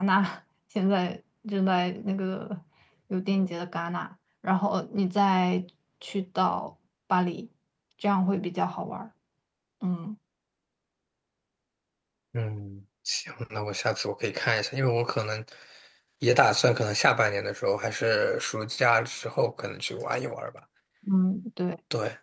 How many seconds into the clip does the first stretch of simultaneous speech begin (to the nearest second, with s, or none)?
none